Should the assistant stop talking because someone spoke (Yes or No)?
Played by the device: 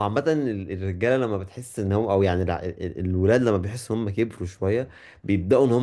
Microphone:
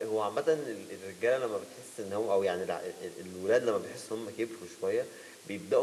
No